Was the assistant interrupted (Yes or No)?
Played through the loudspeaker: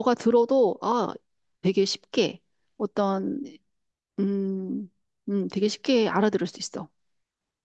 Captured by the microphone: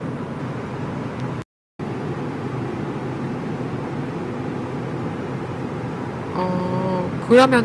Yes